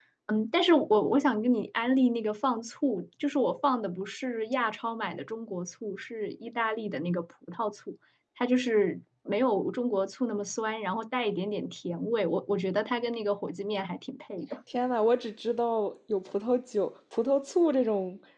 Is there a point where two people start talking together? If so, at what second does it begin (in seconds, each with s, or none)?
none